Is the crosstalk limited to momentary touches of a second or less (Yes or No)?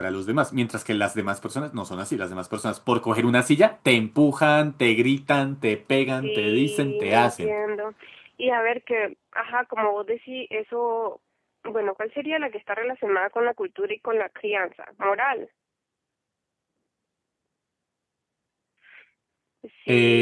No